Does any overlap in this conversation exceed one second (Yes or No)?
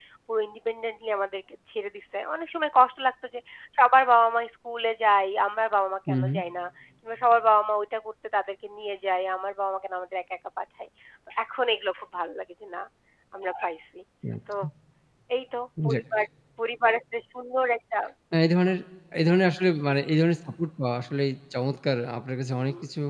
No